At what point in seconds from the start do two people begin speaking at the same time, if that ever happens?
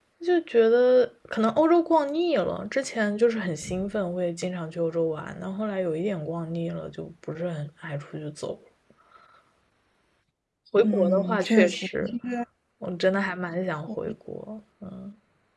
10.8 s

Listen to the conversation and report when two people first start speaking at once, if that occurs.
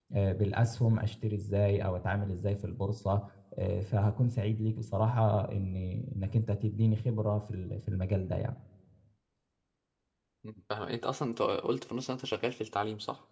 none

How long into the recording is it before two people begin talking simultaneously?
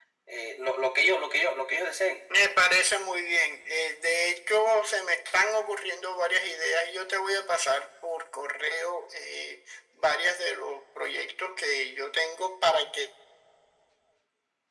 none

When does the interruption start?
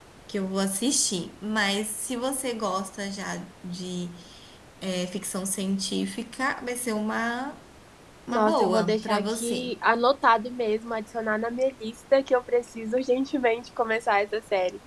8.3 s

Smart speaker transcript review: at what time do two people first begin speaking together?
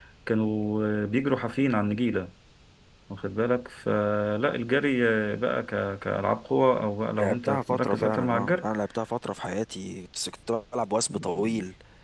7.2 s

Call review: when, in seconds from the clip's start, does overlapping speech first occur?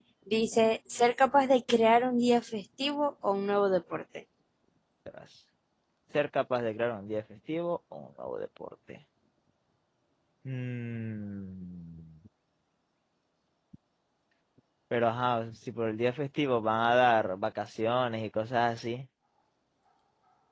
none

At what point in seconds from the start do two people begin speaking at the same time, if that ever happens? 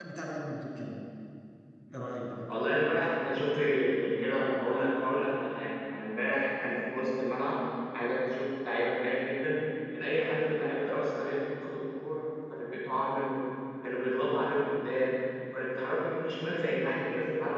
none

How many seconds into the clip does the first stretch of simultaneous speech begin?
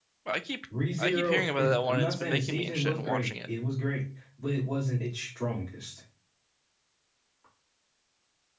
1.0 s

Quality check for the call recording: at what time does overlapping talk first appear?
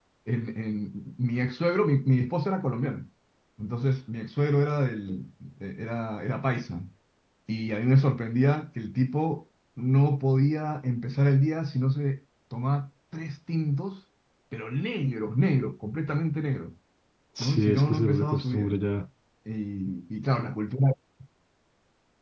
17.4 s

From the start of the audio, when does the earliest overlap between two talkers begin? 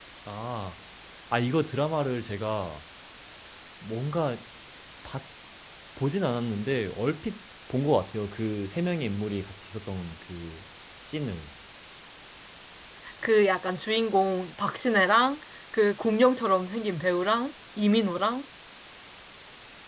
none

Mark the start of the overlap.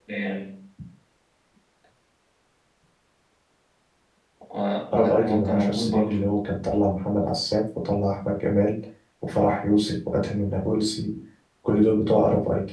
4.9 s

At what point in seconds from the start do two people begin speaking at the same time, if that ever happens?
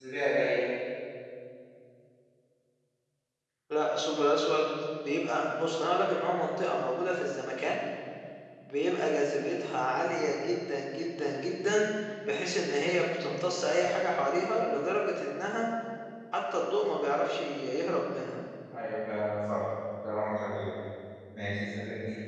none

